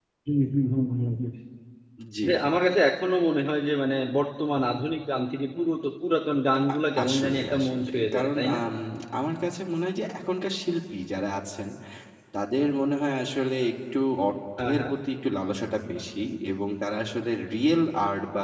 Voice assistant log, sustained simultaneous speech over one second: present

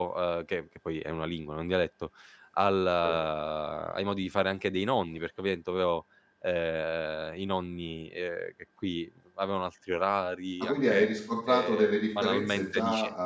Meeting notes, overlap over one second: present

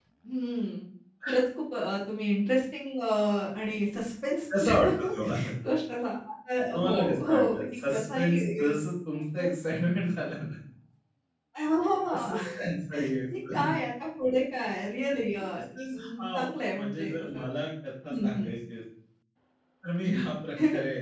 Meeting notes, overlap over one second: present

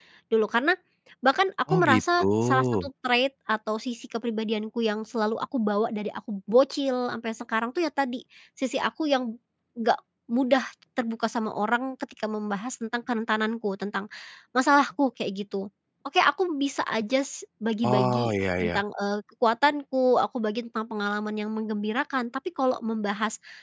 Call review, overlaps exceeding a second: present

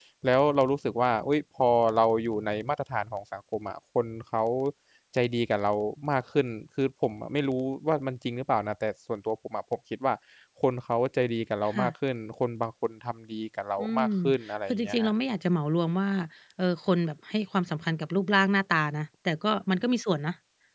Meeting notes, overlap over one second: none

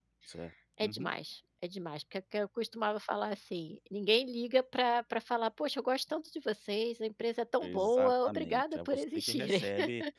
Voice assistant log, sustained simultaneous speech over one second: present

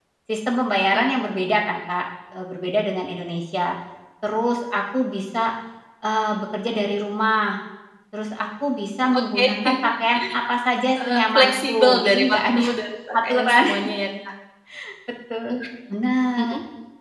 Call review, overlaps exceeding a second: present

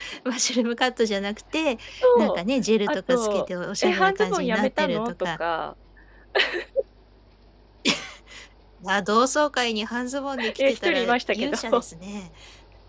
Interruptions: present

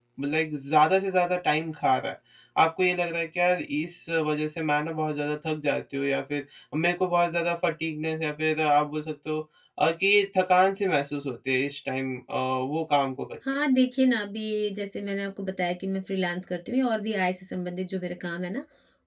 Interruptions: none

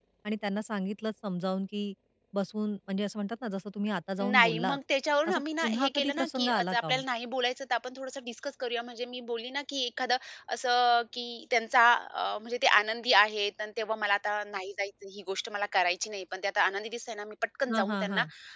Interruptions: present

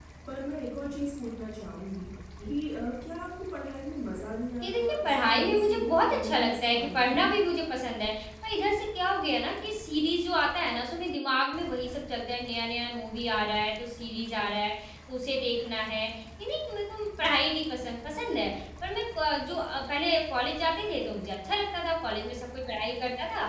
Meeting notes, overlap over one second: present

